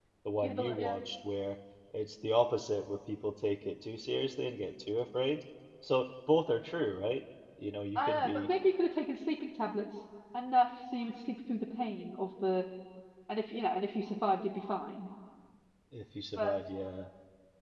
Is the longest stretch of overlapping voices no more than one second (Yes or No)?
Yes